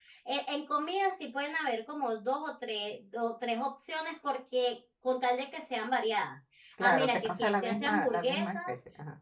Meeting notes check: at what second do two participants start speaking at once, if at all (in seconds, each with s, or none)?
6.8 s